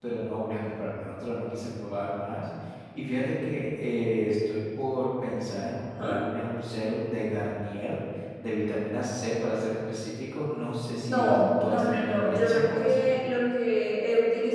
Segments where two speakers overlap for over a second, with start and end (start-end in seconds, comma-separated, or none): 11.1-13.0